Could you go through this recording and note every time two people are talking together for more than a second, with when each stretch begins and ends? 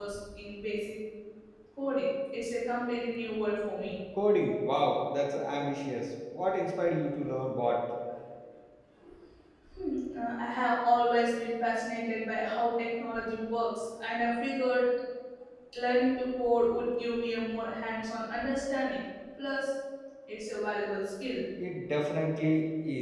none

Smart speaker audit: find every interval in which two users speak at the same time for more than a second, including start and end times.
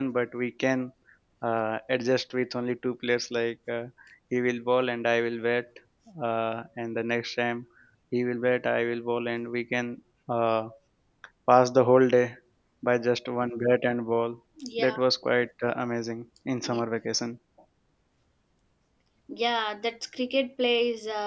none

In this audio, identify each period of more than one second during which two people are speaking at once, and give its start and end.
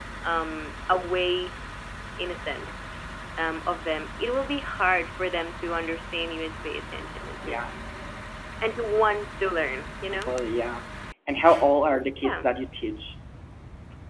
none

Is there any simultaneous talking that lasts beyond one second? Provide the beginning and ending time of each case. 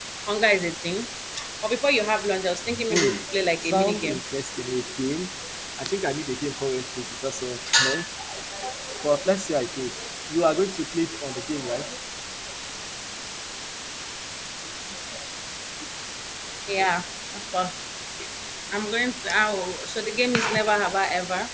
2.9-4.2

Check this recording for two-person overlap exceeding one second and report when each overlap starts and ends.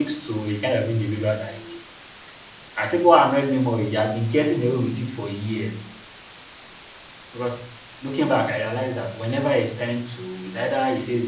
none

